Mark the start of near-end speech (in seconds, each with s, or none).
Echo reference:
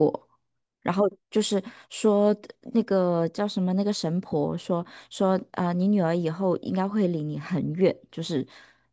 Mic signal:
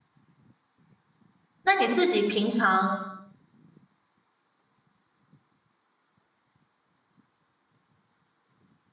1.6 s